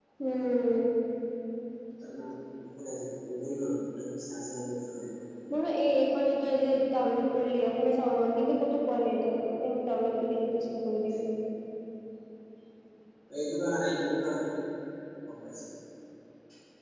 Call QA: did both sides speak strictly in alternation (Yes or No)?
Yes